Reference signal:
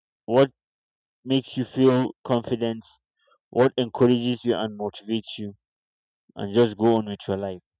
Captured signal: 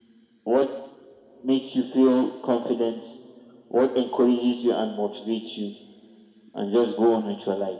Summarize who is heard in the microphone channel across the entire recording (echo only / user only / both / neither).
echo only